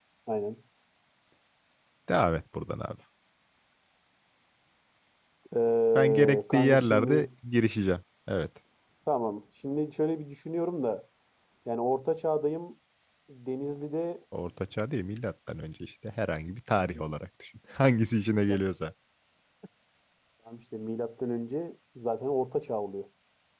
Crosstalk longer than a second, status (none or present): present